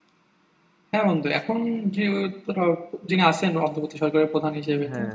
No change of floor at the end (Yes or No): Yes